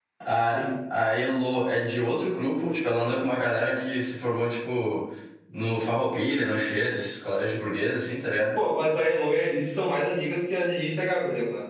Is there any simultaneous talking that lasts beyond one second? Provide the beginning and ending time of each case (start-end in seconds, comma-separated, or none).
none